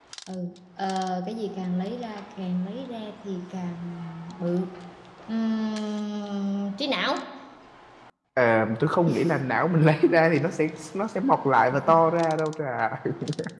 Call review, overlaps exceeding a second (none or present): none